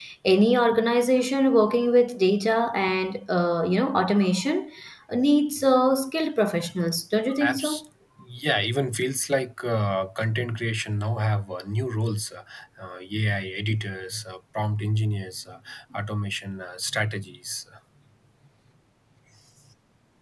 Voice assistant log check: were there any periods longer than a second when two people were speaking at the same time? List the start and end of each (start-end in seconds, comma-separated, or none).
none